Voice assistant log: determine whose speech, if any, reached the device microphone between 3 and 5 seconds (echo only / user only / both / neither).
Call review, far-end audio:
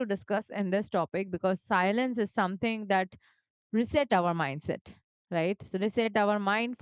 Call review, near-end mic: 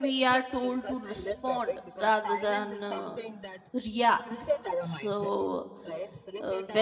both